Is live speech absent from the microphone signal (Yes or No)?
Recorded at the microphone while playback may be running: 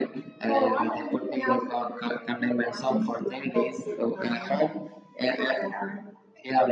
No